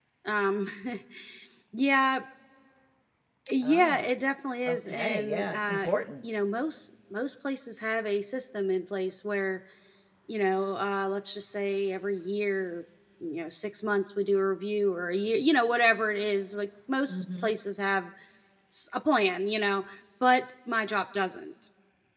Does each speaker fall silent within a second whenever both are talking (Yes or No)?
No